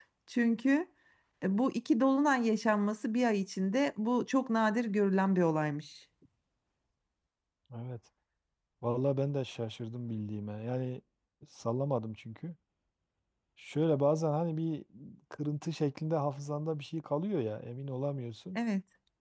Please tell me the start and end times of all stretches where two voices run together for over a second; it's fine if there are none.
none

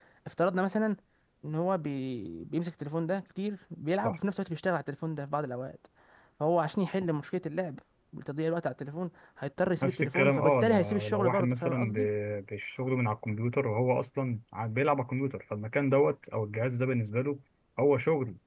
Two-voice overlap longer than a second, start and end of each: 9.8-12.1

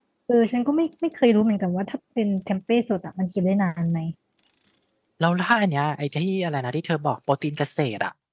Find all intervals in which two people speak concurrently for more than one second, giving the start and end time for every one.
none

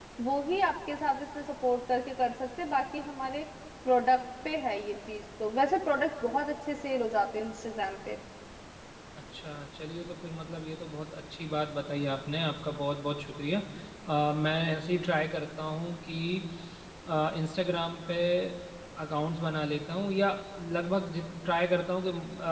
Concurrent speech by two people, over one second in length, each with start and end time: none

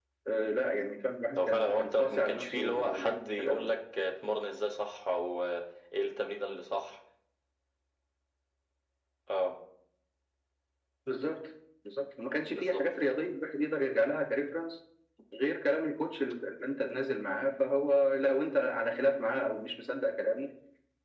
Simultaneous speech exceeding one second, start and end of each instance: 1.4-3.7

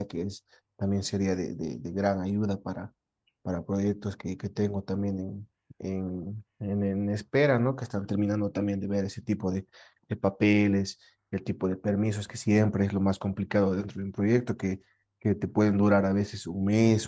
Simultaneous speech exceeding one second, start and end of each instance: none

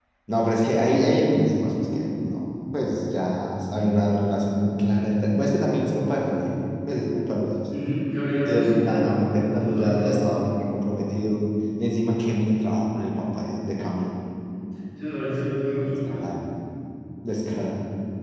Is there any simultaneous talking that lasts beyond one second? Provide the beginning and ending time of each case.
8.3-10.2

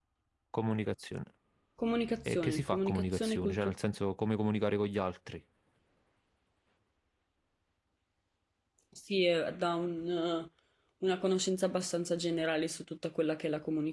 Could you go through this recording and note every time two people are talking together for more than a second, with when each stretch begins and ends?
2.2-3.7

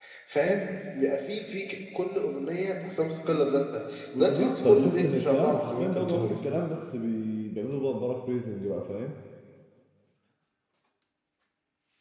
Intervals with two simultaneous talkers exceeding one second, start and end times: 4.2-6.3

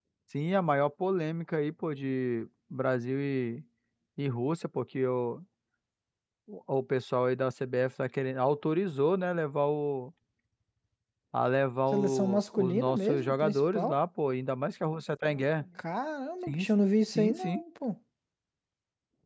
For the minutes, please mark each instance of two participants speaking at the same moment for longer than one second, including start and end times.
11.9-13.9

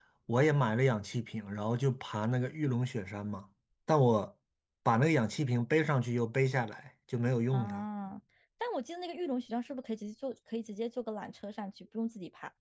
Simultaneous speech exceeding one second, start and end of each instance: none

